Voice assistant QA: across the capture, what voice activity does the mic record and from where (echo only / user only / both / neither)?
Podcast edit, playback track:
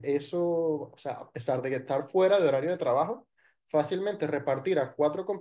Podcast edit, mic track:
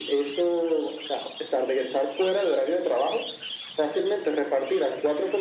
echo only